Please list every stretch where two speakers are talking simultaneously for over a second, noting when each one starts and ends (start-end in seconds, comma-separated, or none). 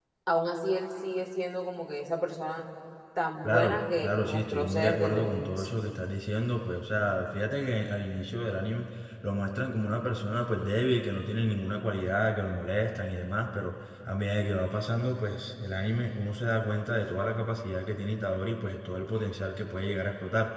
3.4-5.7